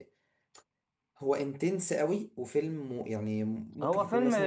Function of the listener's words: taking over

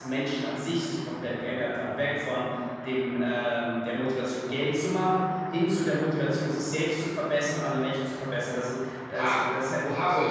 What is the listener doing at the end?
taking over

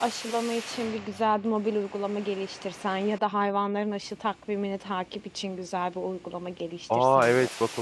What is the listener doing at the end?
taking over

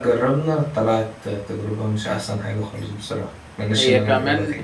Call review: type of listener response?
taking over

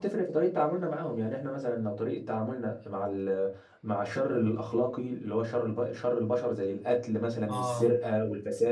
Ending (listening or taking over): listening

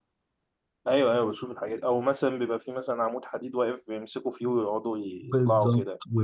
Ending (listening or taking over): taking over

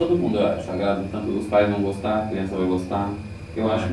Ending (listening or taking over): listening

